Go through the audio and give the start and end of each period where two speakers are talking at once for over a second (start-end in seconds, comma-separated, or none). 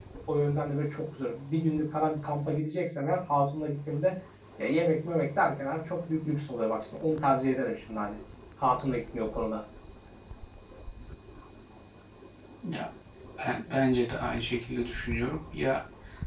none